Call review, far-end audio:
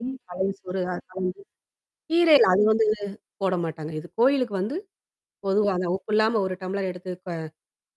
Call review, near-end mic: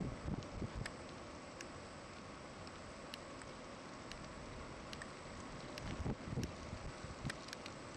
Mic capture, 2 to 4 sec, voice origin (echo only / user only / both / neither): neither